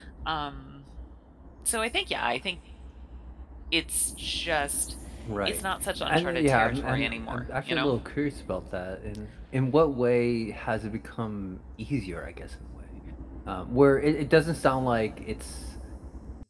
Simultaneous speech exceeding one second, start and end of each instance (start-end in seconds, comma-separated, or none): 6.0-7.9